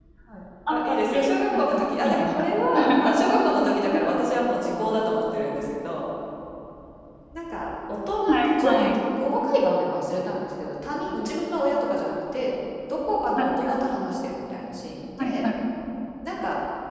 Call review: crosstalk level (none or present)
present